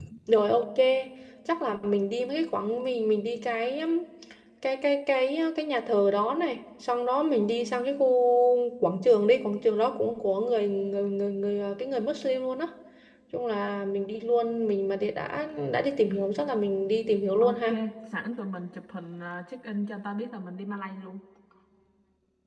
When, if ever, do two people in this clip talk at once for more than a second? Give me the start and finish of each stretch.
none

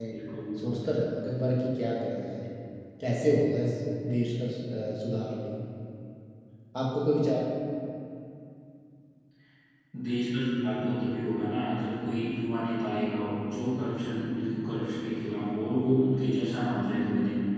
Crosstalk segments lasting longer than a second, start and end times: none

